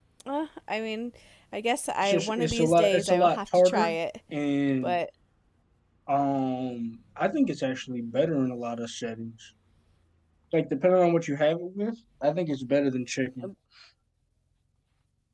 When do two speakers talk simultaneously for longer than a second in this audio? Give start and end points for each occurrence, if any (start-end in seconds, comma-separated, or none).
2.0-4.0